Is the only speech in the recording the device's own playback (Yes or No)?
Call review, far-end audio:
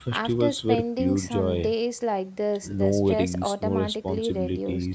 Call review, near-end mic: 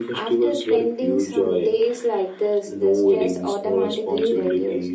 Yes